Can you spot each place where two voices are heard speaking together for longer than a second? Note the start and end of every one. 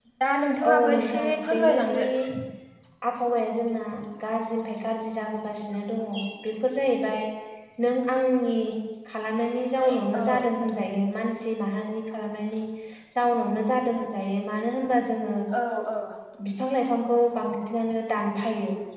0.7-2.0

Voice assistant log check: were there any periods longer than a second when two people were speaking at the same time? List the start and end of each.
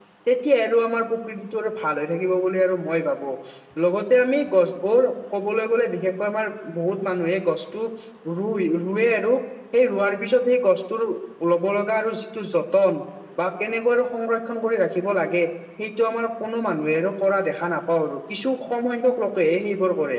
none

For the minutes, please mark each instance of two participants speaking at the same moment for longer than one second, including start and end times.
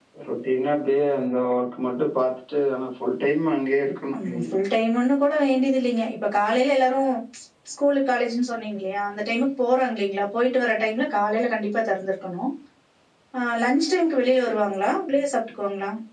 none

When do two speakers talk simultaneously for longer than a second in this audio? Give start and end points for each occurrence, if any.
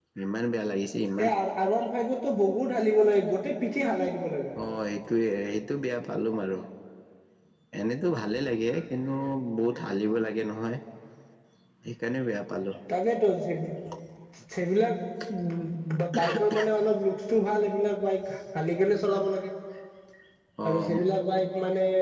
none

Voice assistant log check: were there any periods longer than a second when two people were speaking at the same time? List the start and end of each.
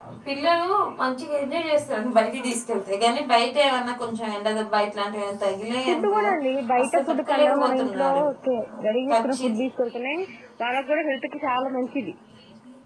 6.8-8.2

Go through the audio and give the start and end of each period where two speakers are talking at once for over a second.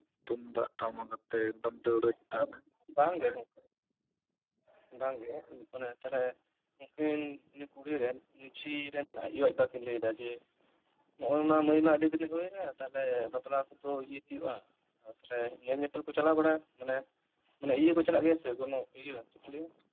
none

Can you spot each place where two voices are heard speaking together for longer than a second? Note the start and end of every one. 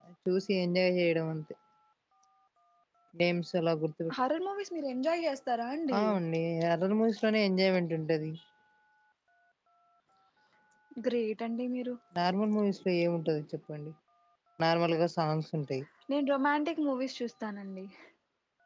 none

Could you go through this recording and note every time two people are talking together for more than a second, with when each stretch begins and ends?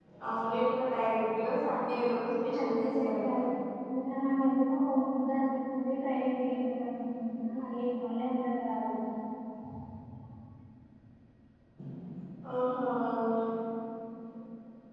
2.1-3.4

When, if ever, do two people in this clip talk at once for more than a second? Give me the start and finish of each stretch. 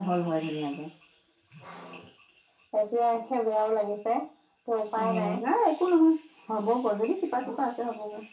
none

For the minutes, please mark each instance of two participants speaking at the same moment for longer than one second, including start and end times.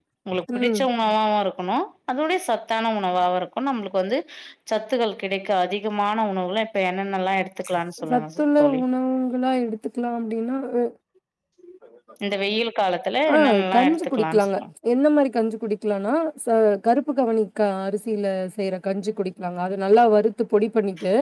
13.3-14.6

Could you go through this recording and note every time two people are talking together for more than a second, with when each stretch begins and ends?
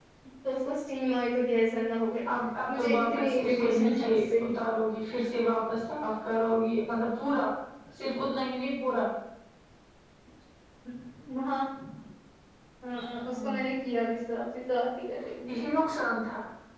2.7-4.4

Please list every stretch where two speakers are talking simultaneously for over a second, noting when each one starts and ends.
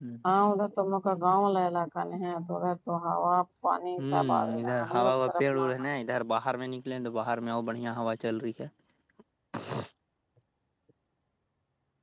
4.0-5.7

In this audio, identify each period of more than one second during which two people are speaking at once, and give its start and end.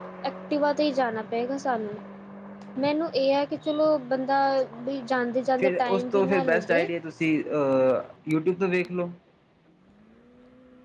5.6-6.9

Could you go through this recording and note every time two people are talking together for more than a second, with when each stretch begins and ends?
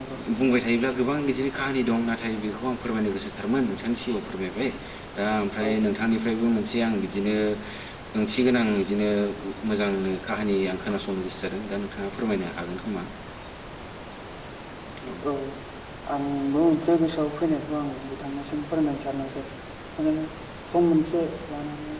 none

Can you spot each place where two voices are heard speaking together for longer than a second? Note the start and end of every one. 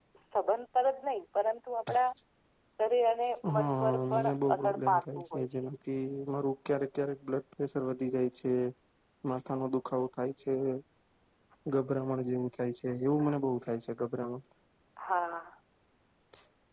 3.5-5.7

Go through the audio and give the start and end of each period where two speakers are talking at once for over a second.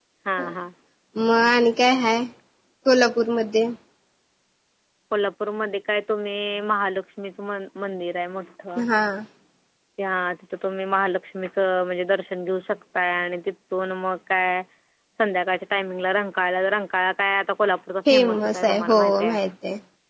18.1-19.4

